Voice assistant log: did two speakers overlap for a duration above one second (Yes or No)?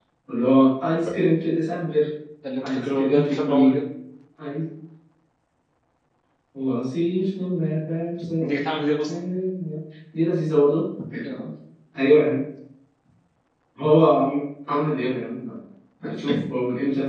Yes